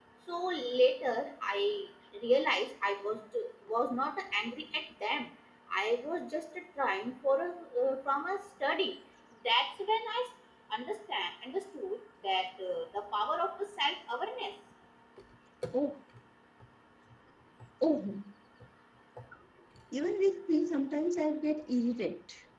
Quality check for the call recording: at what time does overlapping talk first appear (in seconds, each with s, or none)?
none